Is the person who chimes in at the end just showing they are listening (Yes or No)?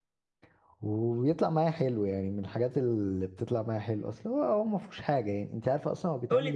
No